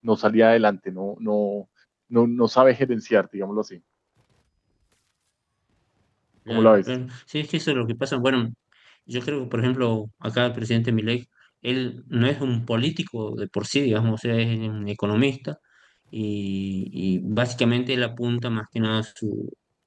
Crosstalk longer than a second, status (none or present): none